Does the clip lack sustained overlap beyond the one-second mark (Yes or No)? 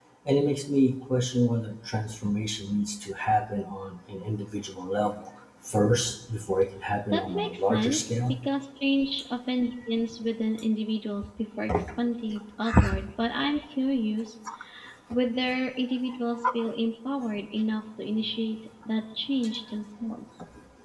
No